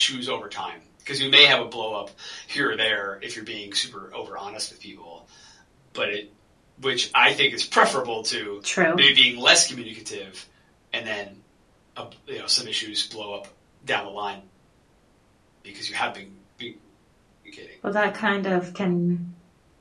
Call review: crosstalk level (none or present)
none